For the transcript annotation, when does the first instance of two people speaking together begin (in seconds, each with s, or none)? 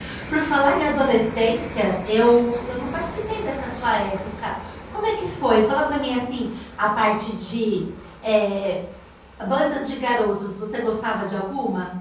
none